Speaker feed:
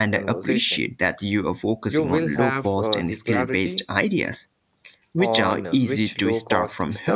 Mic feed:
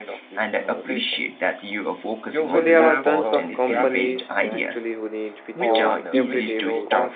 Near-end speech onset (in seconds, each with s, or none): 2.4 s